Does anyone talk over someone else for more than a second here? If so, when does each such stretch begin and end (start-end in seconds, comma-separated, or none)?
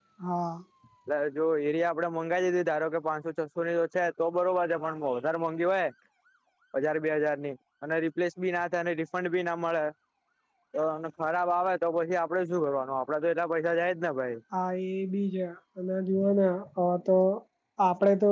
none